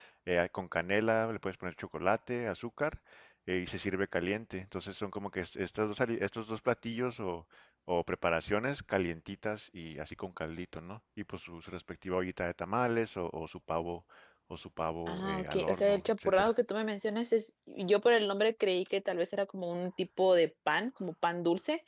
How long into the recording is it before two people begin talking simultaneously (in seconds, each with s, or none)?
15.1 s